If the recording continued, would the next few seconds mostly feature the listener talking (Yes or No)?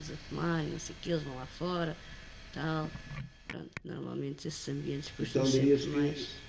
Yes